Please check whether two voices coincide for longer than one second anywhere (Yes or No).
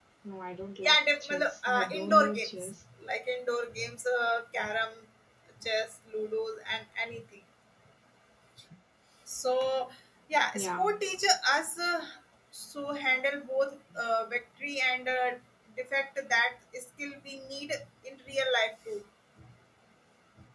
Yes